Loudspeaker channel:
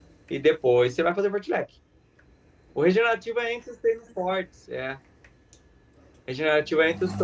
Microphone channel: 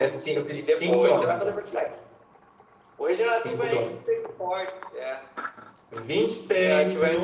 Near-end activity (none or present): present